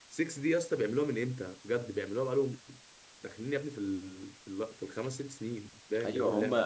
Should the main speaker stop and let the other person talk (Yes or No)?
Yes